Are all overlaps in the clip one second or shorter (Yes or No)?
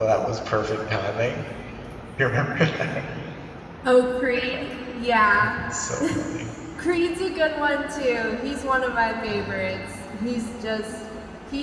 Yes